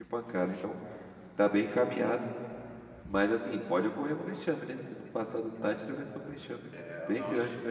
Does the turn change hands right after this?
Yes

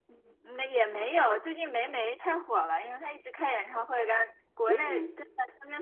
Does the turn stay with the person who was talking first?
Yes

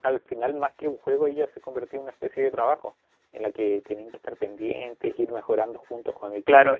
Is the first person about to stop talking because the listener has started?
Yes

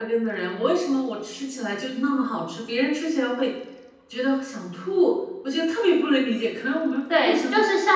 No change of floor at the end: No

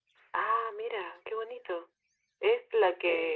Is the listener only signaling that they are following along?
Yes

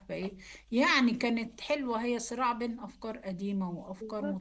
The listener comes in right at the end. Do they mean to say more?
Yes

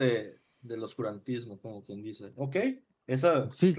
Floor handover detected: Yes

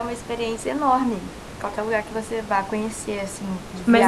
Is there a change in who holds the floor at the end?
Yes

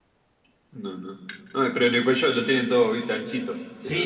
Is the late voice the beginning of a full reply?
Yes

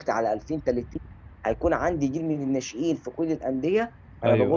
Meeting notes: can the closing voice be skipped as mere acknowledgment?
Yes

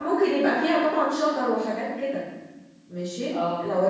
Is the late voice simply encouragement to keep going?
Yes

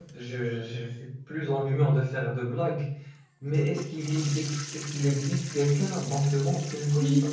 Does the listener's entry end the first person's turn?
Yes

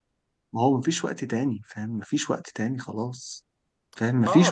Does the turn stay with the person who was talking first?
No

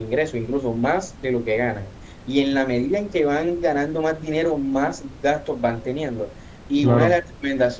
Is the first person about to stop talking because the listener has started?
No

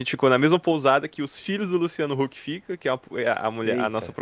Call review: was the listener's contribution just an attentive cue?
Yes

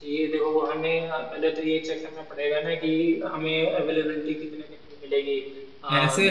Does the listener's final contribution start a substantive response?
Yes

